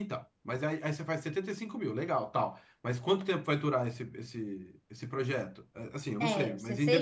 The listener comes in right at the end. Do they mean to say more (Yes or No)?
Yes